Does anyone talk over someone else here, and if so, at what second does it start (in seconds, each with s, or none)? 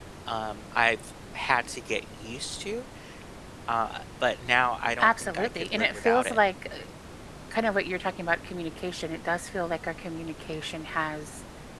5.0 s